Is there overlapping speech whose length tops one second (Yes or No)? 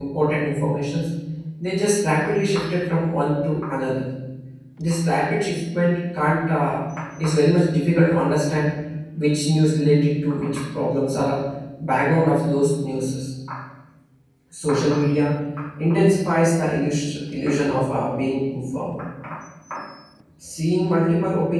No